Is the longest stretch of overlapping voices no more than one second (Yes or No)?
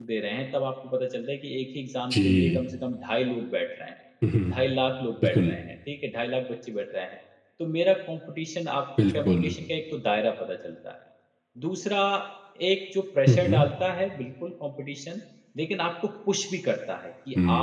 Yes